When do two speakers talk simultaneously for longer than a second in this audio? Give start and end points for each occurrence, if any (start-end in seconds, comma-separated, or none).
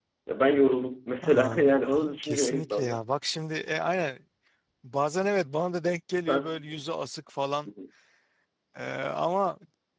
1.2-3.0